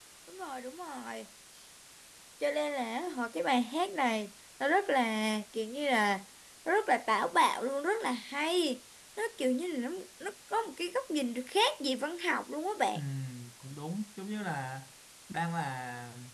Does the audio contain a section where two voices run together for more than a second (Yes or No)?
No